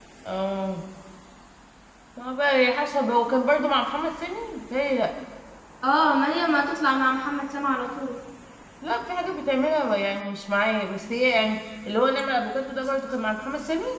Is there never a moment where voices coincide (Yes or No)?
Yes